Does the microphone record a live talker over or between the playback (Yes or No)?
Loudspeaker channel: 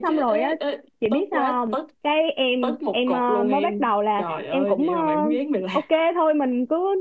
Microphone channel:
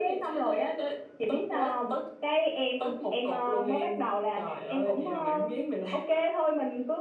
No